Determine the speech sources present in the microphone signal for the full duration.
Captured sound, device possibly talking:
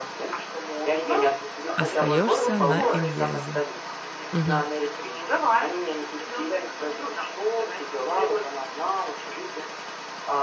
both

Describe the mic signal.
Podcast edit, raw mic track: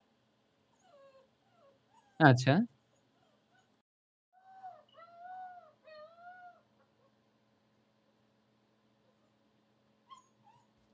user only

